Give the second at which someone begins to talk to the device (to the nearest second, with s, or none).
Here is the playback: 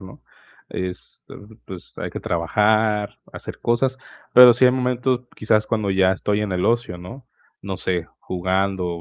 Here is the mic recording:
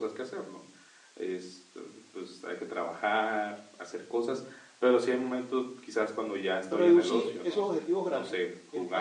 7 s